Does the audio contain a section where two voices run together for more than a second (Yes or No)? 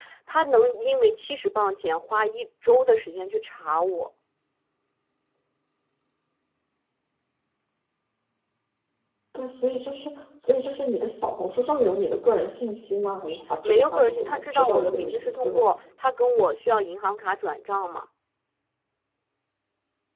Yes